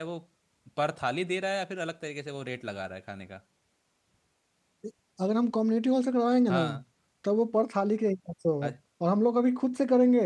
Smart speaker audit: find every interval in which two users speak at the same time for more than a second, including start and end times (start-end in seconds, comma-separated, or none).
none